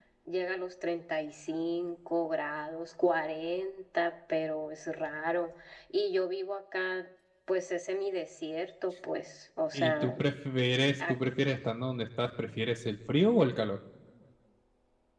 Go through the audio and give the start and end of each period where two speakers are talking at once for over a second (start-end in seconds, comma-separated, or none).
none